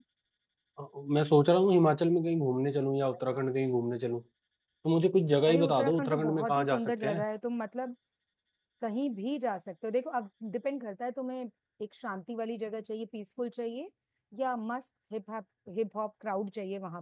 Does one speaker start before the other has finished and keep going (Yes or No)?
Yes